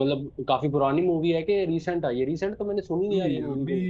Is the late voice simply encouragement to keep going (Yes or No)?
No